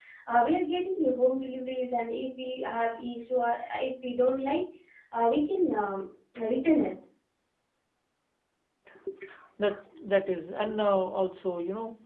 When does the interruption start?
none

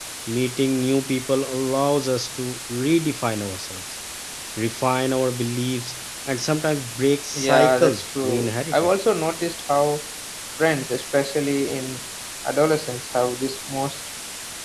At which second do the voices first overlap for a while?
7.3 s

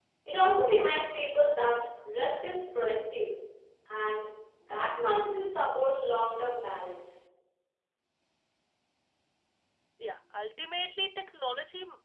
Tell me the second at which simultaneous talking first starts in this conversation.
none

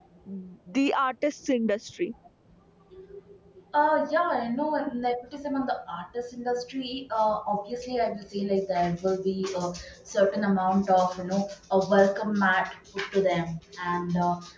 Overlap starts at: none

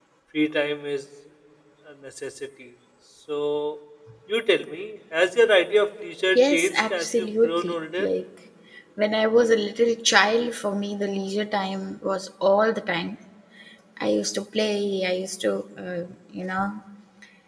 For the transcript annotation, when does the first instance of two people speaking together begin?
6.4 s

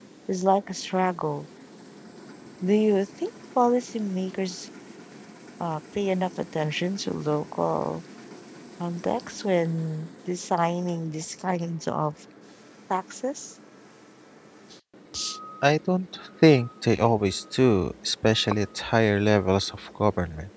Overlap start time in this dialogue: none

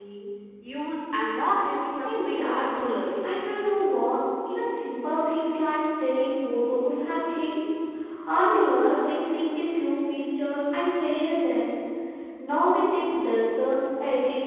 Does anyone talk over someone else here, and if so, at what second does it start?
2.0 s

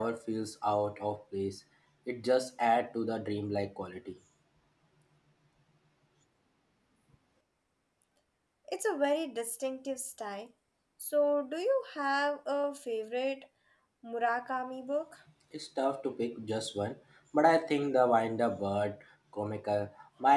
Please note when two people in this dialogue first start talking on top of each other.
none

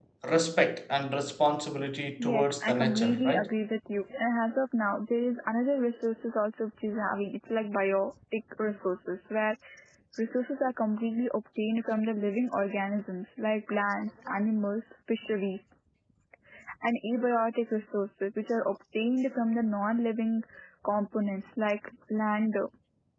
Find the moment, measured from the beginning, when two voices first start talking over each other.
2.2 s

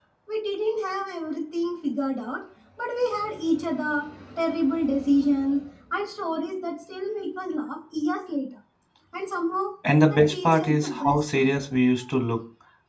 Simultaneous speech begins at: 10.1 s

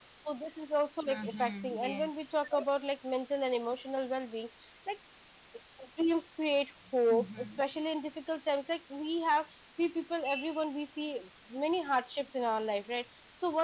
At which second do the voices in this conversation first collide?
1.1 s

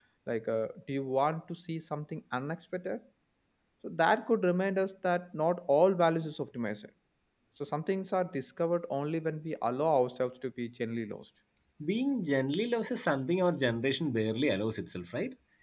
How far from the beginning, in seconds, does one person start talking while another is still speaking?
none

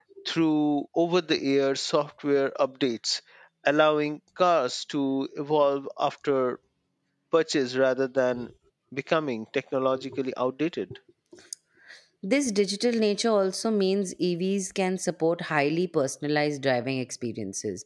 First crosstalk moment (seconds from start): none

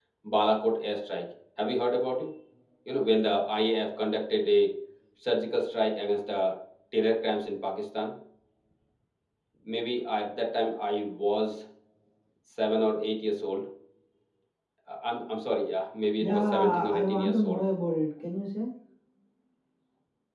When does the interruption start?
16.2 s

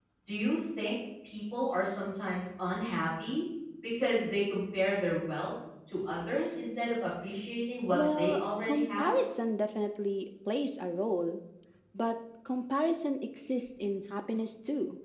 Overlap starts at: 7.9 s

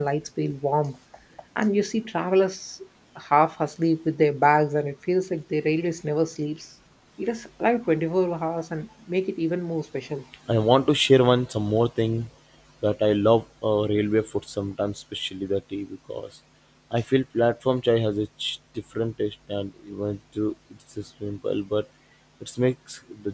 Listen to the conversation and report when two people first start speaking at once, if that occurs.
none

